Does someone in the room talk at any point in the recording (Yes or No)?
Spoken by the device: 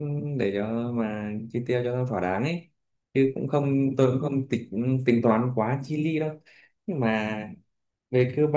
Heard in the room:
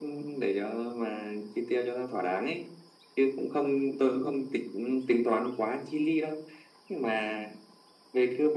No